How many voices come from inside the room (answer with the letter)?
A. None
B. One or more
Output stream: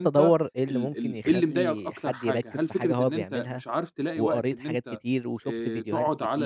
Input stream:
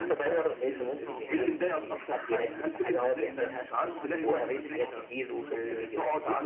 B